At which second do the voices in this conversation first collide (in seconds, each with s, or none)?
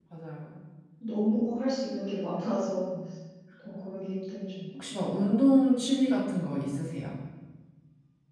none